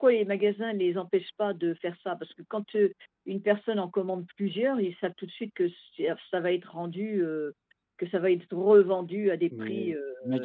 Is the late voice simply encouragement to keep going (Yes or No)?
No